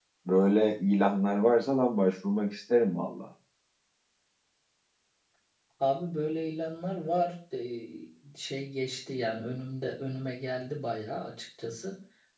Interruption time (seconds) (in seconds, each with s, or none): none